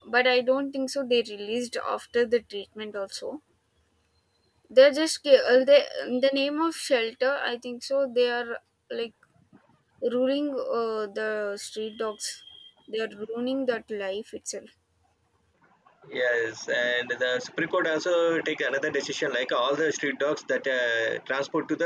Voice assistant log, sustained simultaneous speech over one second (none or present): none